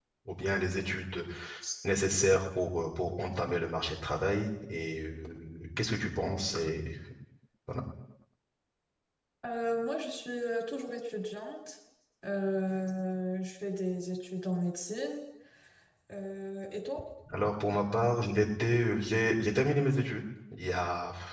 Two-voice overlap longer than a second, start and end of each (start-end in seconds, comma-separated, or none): none